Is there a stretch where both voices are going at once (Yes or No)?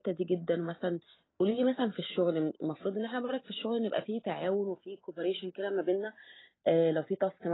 No